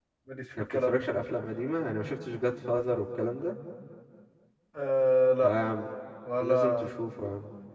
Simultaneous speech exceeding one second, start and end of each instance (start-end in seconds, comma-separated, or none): none